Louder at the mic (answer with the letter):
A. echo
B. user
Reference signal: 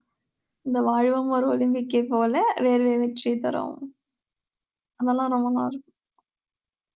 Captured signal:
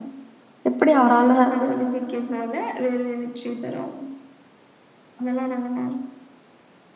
B